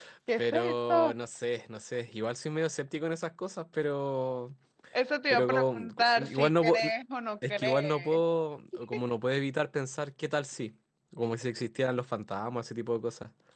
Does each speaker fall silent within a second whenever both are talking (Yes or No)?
No